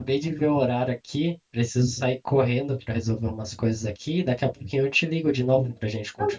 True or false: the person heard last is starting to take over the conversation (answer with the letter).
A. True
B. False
A